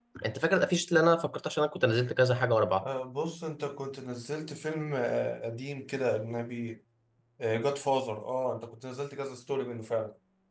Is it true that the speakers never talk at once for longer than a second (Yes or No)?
Yes